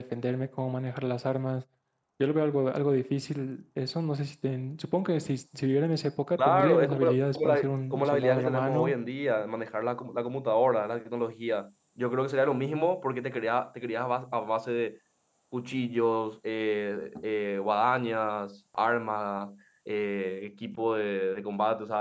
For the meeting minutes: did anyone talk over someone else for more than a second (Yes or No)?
Yes